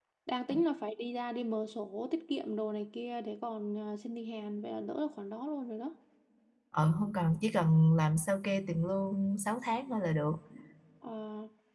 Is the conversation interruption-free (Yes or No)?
Yes